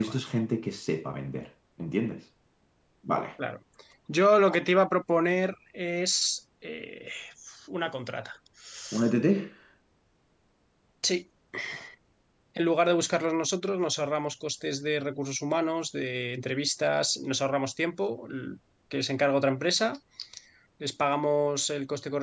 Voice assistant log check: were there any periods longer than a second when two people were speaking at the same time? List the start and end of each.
none

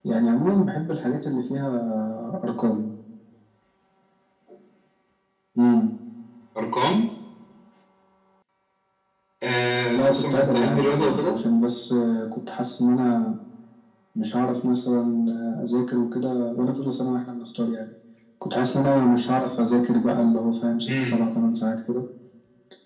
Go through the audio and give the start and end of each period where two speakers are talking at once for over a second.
10.0-11.4

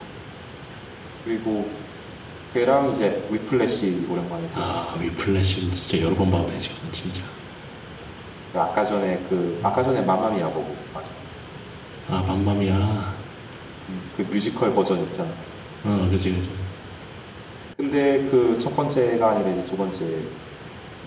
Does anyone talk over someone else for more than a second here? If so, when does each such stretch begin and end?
none

